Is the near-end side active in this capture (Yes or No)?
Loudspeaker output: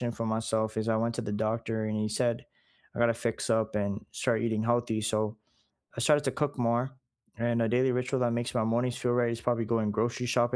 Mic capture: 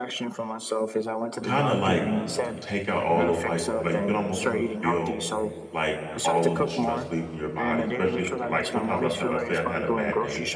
Yes